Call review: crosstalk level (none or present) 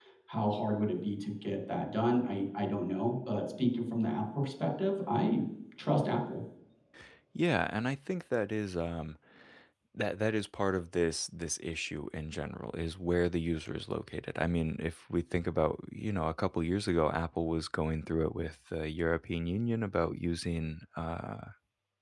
none